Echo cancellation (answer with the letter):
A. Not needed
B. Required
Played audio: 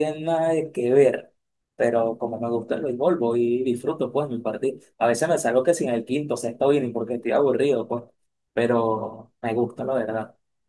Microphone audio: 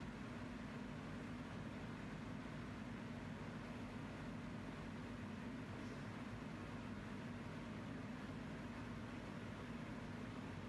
A